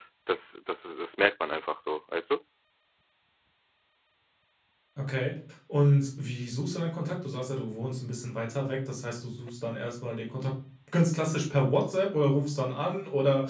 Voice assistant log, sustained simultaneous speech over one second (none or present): none